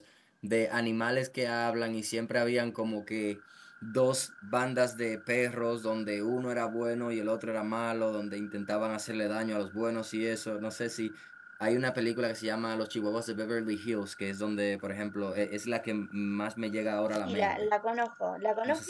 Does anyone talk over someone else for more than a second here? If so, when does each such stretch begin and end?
none

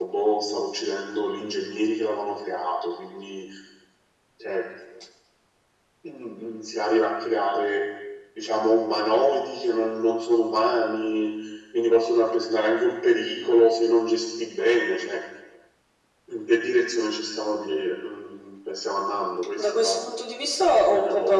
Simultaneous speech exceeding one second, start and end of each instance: none

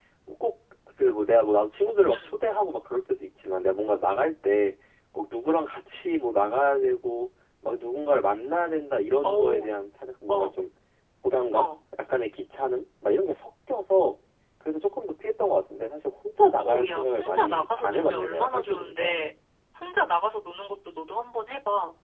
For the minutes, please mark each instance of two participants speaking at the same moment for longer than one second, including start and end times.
16.6-19.2

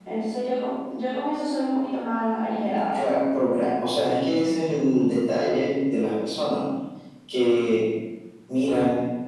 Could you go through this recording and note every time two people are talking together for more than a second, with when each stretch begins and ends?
none

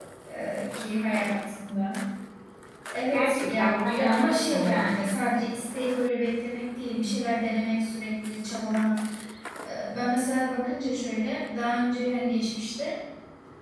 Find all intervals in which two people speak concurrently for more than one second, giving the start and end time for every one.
3.1-5.1

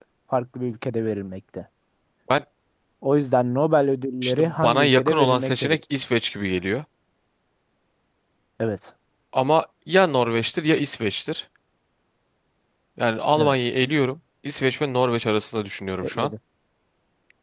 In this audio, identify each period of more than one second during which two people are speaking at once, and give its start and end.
4.2-5.8

